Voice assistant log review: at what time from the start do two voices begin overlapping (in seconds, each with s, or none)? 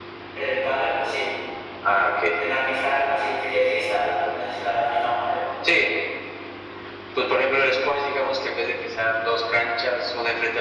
none